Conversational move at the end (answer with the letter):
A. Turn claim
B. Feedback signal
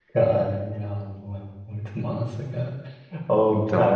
B